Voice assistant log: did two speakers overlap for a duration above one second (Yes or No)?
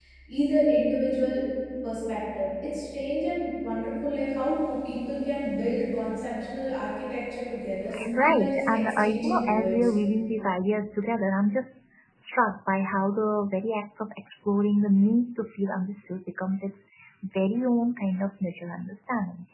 Yes